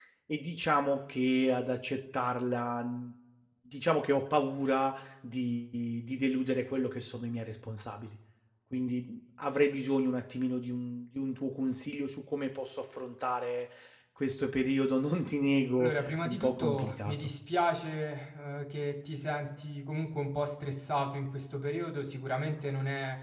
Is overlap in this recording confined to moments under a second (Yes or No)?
No